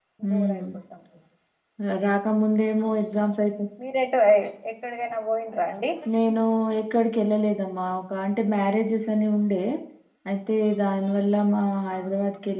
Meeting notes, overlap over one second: none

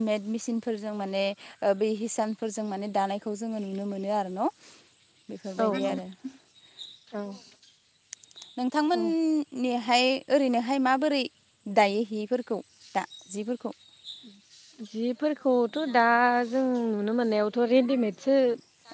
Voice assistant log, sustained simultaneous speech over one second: none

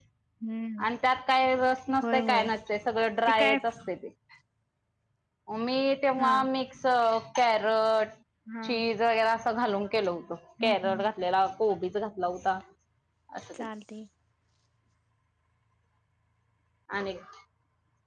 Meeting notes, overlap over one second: none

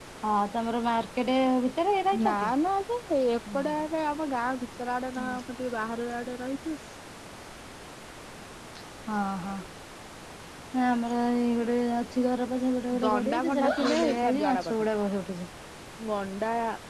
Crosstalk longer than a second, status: present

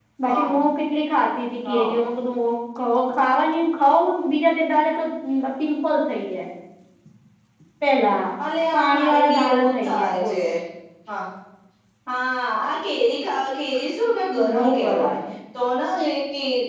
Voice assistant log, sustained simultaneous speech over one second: present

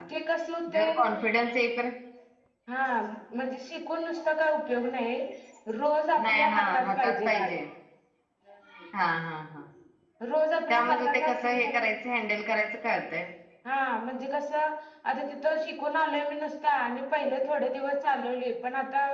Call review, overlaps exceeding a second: present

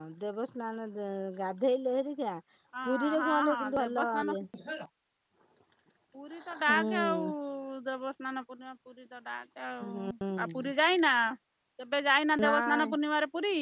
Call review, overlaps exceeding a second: present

